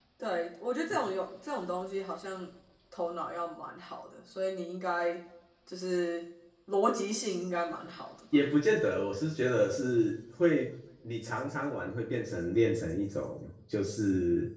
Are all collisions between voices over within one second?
Yes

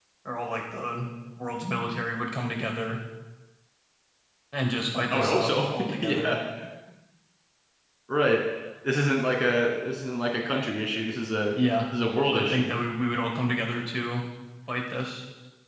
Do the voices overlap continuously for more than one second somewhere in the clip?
Yes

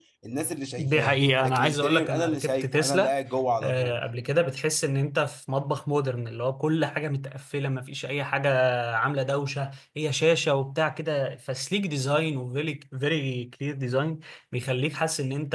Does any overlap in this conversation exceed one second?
Yes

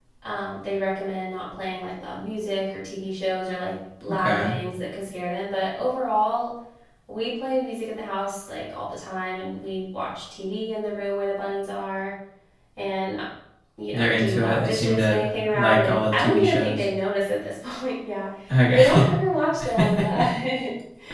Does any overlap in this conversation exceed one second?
Yes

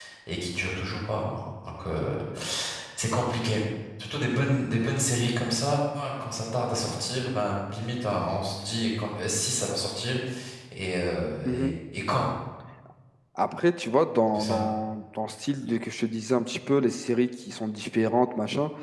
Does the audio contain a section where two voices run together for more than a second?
No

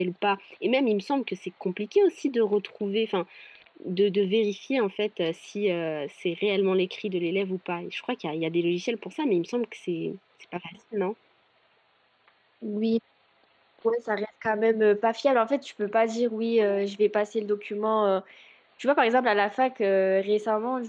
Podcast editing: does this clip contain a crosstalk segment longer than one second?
No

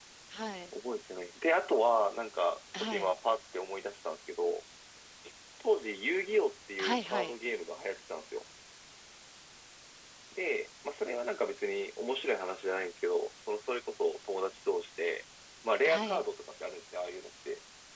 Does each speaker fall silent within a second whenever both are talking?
Yes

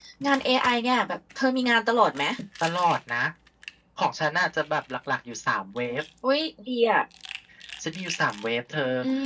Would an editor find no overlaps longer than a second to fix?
Yes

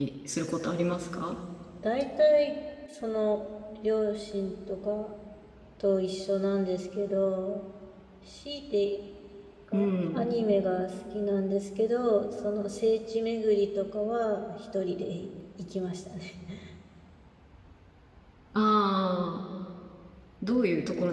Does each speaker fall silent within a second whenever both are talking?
Yes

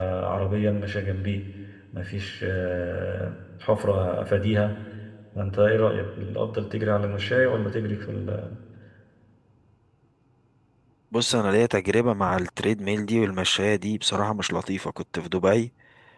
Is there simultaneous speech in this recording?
No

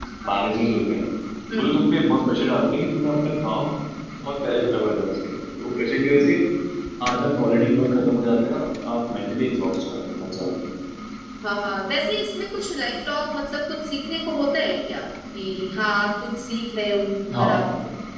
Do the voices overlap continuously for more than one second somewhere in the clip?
No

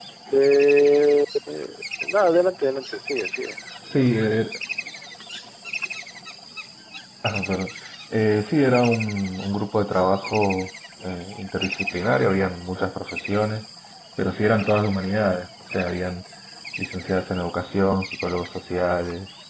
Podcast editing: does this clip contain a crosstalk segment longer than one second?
No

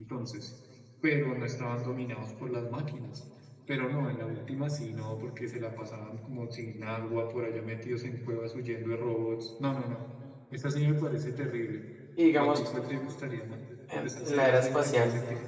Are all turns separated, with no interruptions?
No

